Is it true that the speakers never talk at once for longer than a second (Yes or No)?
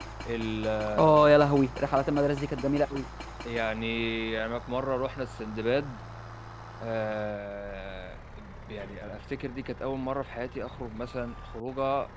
Yes